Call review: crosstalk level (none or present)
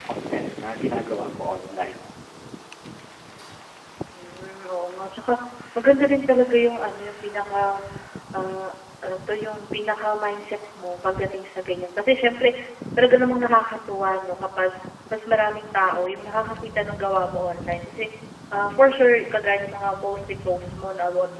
none